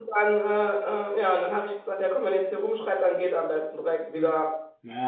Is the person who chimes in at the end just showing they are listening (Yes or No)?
No